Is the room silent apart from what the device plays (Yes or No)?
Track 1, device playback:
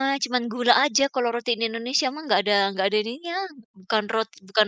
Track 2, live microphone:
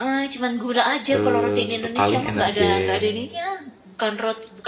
No